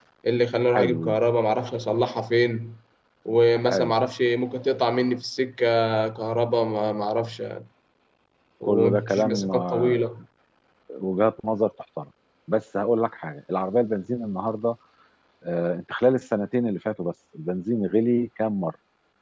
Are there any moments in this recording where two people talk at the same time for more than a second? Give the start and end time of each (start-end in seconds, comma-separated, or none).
8.6-10.0